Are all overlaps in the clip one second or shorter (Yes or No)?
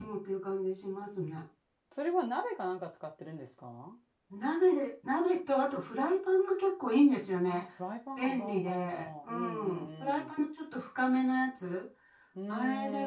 No